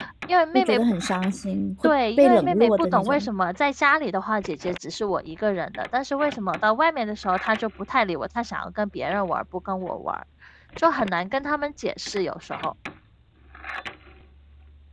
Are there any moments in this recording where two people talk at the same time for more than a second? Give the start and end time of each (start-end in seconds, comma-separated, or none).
1.8-3.3